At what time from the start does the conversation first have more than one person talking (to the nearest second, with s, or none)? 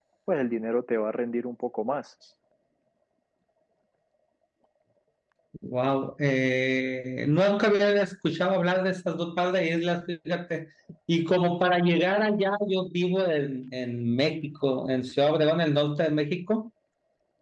none